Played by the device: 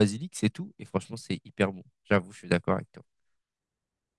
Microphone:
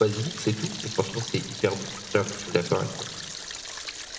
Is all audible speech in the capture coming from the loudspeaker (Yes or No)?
Yes